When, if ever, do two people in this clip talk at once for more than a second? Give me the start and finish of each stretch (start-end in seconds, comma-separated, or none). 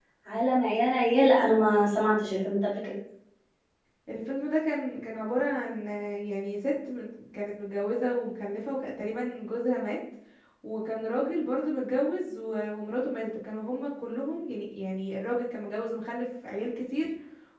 none